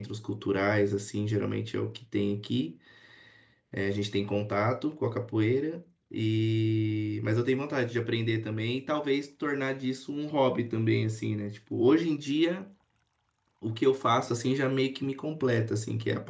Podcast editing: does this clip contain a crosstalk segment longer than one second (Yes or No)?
No